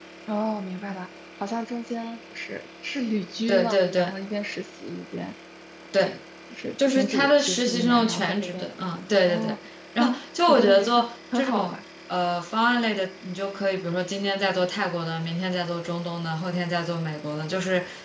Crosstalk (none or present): present